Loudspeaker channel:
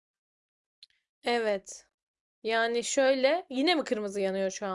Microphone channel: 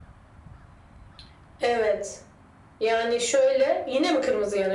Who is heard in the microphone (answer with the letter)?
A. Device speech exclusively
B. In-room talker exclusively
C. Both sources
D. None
A